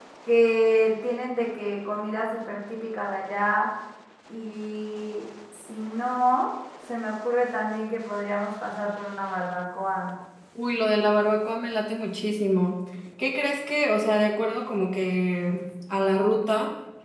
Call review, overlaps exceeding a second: none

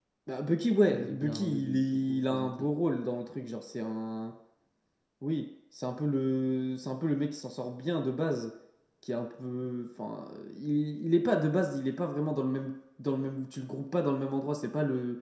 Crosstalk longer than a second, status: present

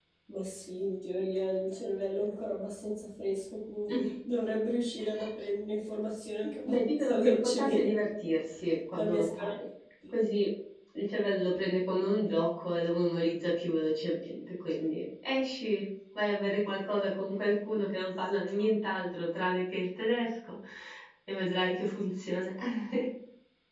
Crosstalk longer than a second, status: present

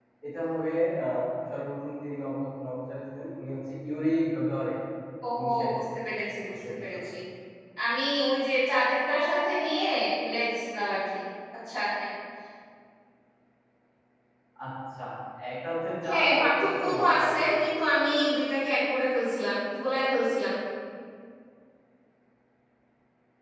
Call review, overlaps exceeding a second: present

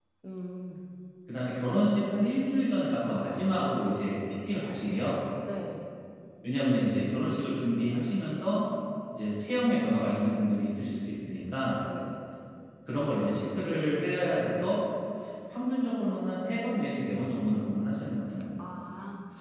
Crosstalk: none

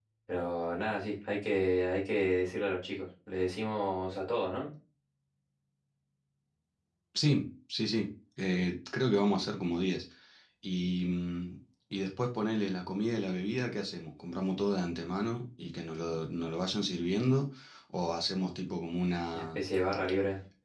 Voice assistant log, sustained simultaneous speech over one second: none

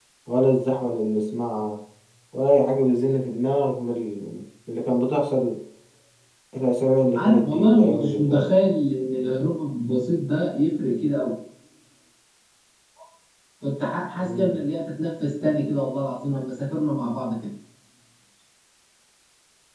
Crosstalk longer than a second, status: present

